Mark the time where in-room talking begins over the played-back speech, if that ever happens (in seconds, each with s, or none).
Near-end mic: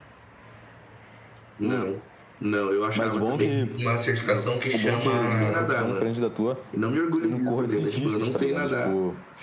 3.3 s